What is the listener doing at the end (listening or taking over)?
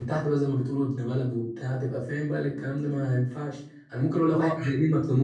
listening